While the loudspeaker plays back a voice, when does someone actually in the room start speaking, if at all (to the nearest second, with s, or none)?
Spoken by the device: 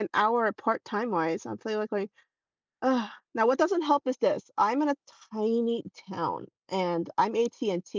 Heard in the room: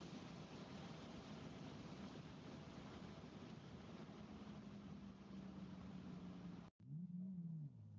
none